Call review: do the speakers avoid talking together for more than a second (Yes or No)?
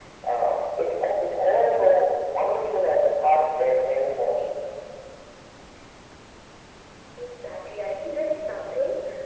Yes